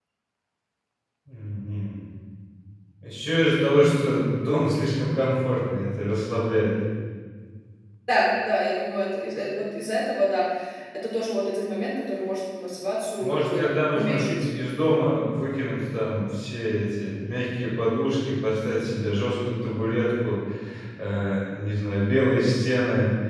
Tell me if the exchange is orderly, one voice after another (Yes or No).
No